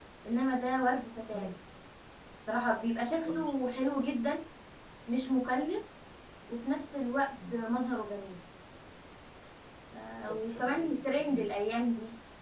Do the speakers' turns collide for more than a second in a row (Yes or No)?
Yes